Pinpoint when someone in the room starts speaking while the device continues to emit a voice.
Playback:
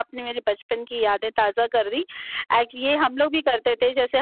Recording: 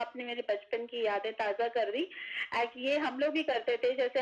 none

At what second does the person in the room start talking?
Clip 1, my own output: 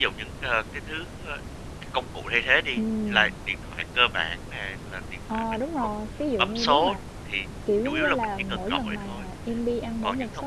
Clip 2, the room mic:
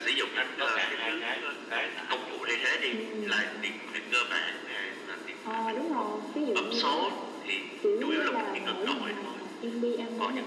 0.3 s

